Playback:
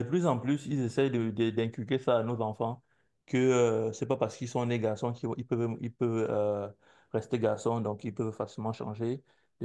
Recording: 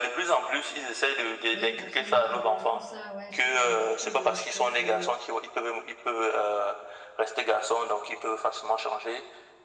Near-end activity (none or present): present